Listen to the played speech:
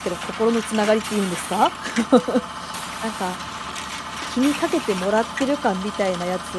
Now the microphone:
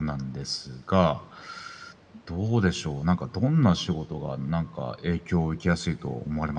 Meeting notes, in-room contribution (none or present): present